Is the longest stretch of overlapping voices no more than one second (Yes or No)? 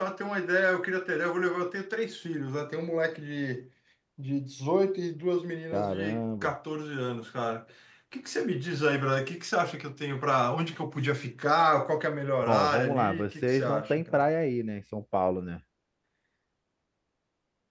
No